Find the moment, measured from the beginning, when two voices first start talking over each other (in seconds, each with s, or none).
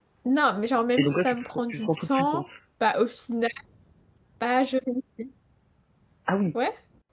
1.0 s